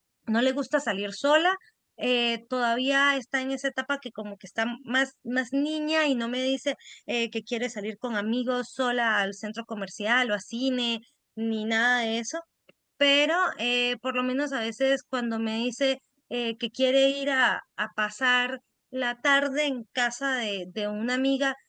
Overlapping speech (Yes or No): No